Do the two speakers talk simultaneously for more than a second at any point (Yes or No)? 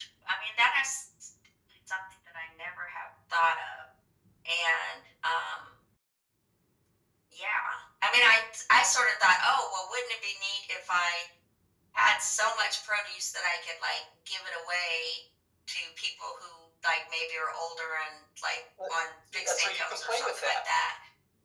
Yes